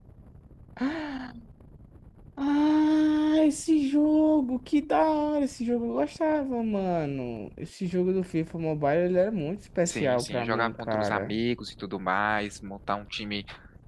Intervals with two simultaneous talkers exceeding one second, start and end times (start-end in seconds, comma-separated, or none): 9.8-11.4